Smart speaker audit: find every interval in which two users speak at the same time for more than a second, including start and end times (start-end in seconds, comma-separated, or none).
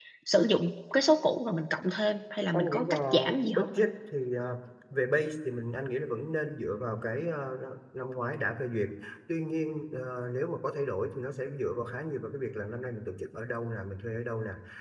2.5-3.8